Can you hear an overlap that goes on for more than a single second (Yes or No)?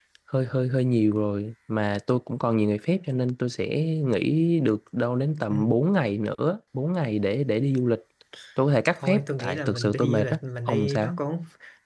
Yes